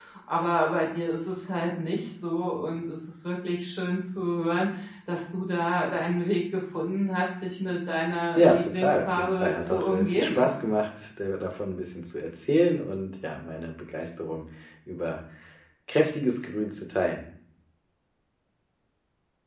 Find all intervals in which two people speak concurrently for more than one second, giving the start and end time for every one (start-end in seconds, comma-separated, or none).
8.3-10.5